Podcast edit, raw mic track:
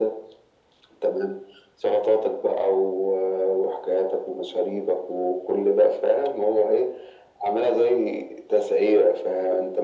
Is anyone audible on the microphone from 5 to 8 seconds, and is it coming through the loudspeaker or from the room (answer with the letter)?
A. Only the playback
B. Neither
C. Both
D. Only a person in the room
A